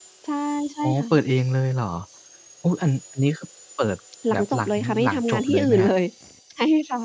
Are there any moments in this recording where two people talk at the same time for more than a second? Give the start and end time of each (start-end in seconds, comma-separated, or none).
4.3-5.9